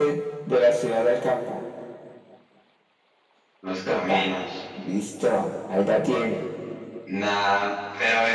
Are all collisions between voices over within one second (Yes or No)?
Yes